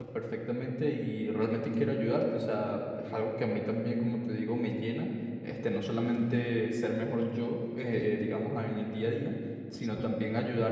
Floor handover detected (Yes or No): No